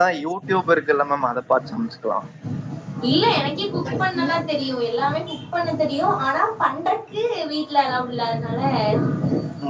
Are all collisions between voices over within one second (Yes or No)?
Yes